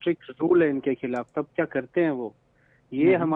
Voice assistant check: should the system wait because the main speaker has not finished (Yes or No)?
Yes